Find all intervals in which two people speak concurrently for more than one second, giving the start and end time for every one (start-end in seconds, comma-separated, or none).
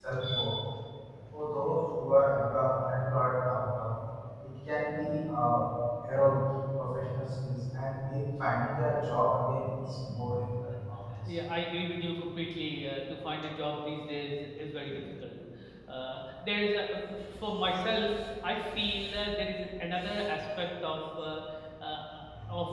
none